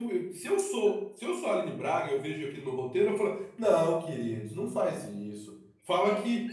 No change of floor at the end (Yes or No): Yes